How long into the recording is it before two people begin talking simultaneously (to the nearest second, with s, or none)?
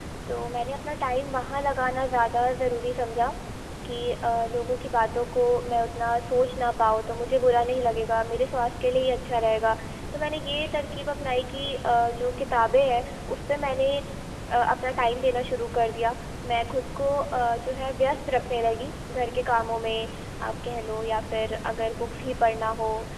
none